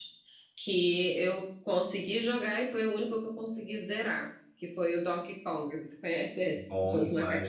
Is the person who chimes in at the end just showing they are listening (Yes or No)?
No